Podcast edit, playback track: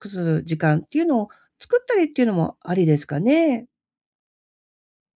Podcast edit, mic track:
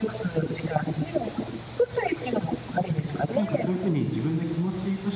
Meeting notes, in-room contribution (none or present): present